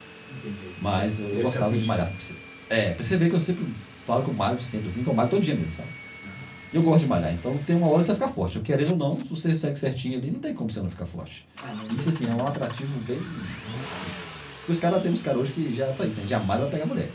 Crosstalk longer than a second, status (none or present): present